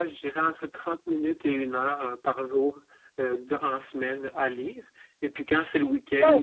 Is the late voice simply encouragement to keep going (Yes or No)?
Yes